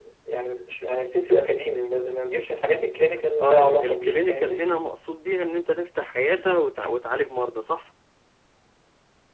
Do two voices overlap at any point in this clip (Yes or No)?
Yes